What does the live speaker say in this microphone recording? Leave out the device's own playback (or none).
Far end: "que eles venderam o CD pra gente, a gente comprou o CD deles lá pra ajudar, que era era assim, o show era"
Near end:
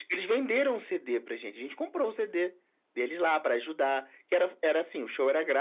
none